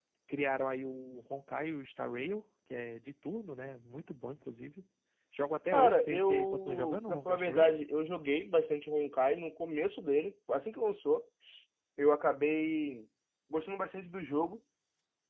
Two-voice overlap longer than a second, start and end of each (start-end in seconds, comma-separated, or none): 5.7-7.7